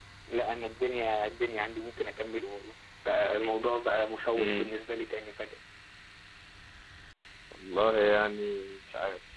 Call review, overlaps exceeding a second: none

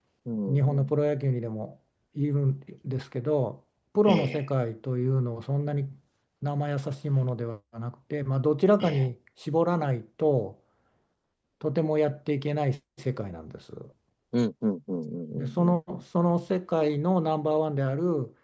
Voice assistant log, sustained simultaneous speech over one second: none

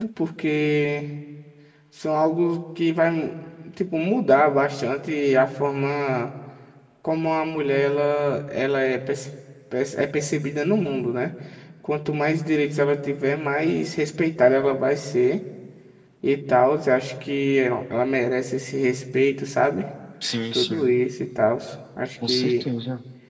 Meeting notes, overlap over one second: none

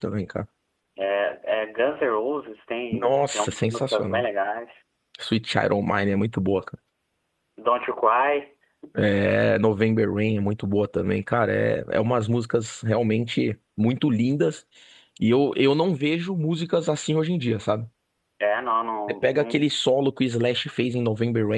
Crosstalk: present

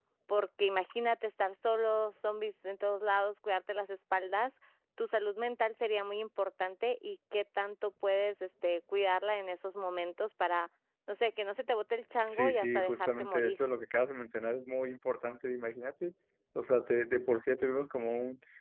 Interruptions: present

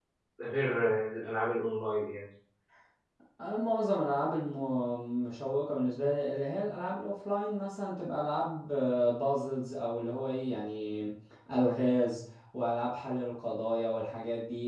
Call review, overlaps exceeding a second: none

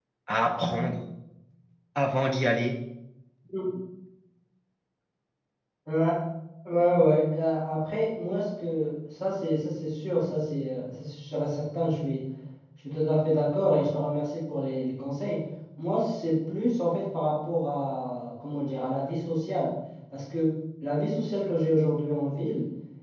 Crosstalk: none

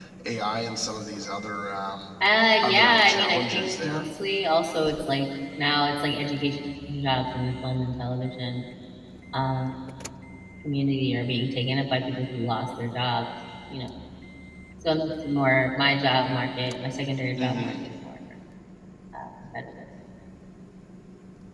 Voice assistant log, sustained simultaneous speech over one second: present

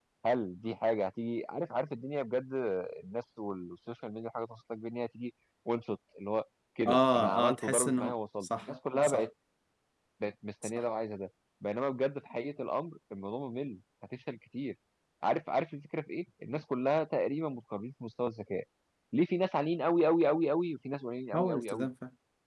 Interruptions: present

